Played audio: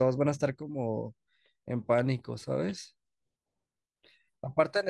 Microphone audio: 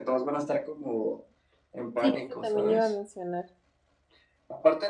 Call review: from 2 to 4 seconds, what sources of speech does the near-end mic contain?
both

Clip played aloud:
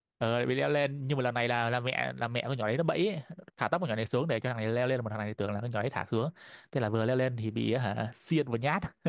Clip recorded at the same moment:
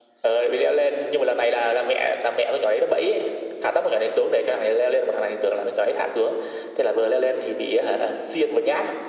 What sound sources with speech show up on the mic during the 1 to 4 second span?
echo only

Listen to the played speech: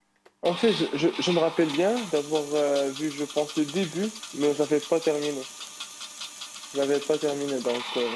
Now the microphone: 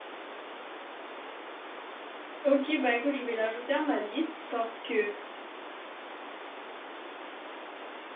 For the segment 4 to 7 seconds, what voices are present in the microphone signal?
user only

